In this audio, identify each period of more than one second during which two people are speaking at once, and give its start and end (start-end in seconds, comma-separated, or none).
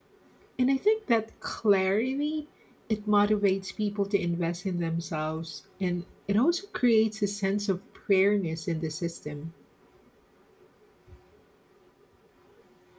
none